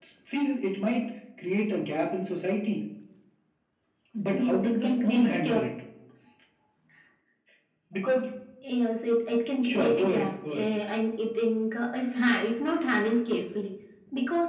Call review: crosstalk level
present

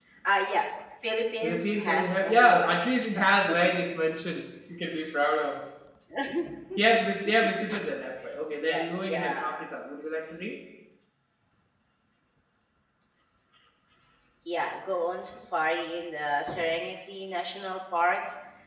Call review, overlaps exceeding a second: present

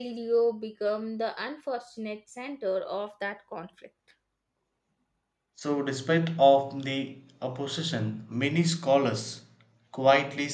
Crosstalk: none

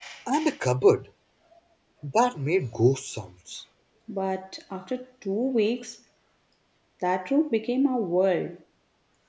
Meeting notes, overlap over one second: none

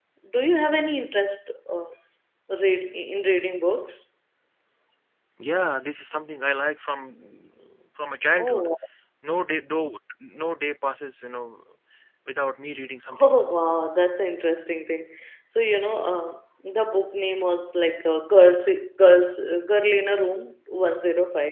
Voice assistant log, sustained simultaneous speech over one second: none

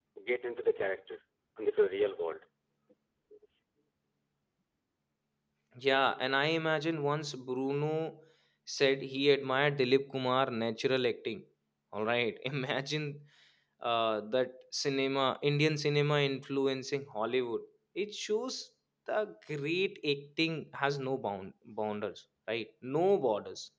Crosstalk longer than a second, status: none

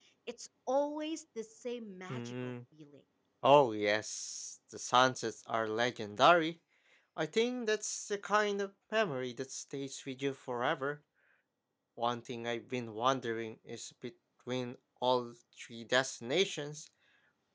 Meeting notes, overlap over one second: none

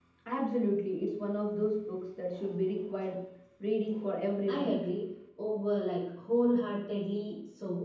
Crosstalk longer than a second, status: none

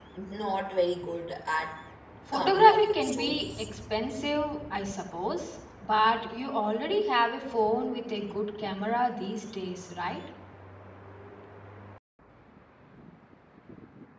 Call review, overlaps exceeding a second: present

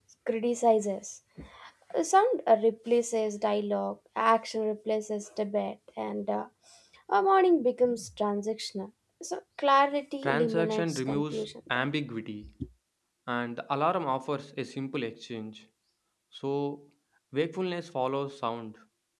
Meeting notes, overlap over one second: present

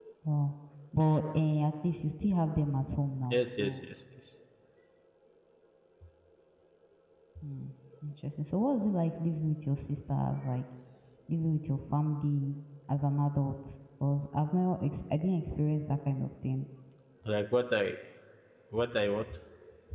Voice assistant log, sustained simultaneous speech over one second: none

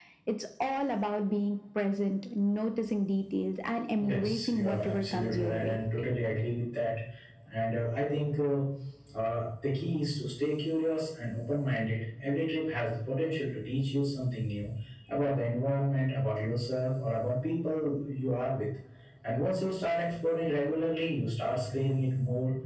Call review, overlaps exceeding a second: present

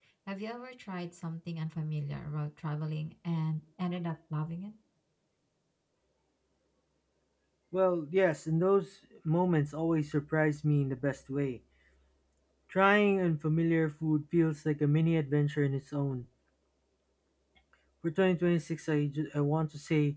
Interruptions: none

